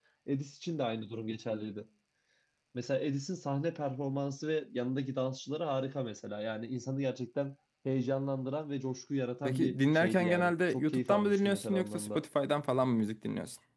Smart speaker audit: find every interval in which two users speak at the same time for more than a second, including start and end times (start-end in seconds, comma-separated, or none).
9.4-12.2